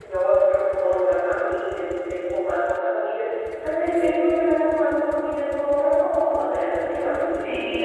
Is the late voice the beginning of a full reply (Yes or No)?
Yes